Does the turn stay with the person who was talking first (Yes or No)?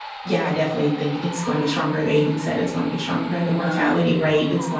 Yes